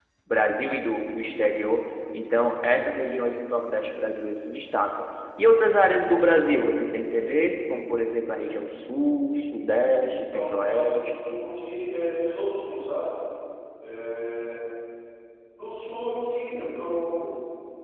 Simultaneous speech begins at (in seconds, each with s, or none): 10.1 s